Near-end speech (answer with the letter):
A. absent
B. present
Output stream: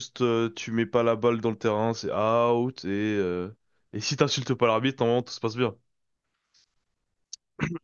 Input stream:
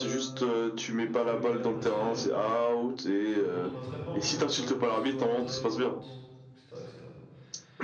B